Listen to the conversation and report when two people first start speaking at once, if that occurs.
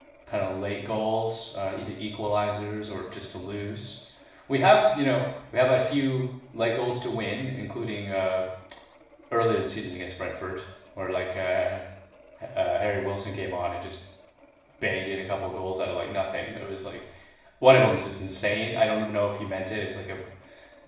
none

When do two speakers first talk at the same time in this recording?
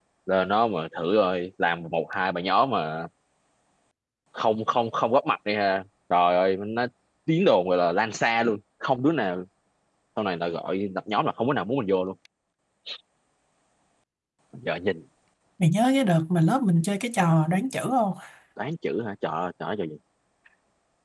none

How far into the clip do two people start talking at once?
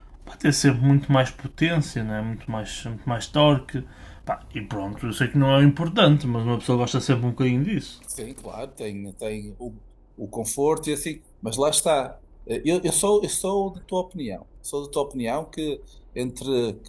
none

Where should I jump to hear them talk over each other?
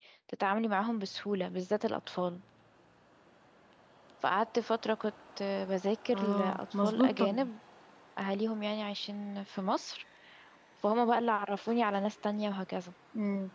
6.1 s

